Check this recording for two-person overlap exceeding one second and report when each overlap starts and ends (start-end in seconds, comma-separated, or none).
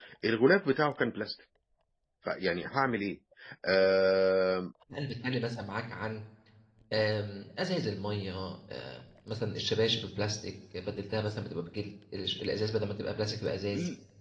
none